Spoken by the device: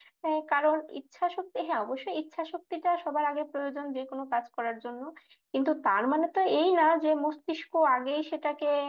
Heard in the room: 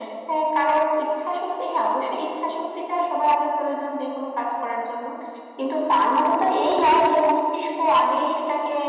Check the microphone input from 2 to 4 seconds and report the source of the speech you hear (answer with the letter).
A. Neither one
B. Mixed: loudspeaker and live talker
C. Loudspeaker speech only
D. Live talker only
C